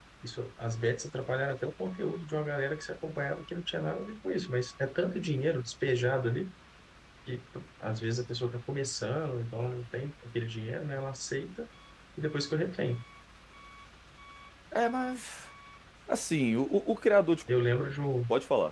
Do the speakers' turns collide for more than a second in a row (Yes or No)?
No